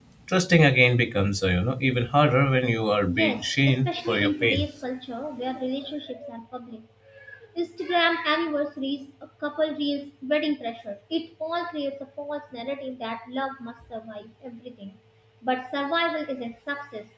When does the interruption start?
3.1 s

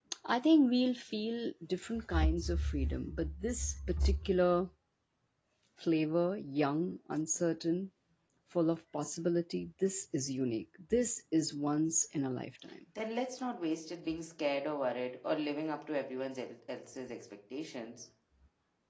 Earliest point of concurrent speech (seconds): none

